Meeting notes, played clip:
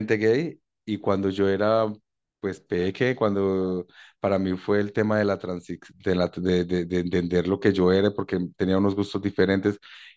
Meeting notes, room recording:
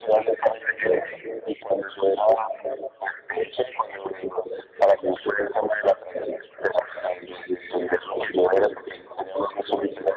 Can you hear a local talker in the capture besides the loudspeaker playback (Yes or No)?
Yes